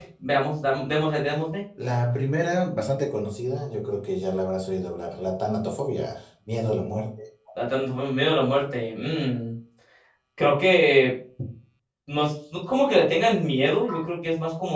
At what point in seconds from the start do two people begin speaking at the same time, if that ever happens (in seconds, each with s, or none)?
none